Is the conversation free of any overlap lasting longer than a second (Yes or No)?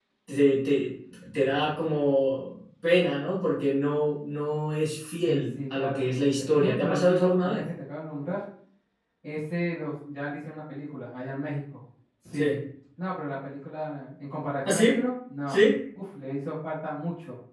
No